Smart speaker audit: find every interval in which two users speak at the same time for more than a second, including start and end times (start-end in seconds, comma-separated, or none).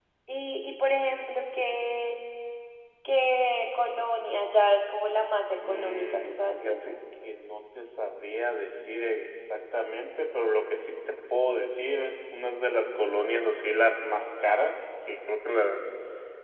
5.6-6.9